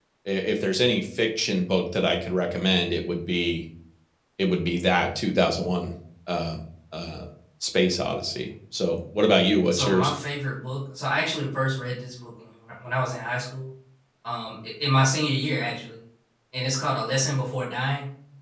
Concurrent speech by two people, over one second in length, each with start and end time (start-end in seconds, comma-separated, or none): none